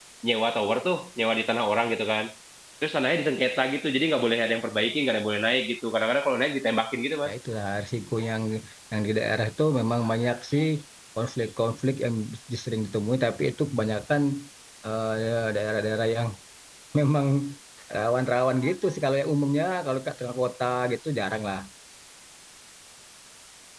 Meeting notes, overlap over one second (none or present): none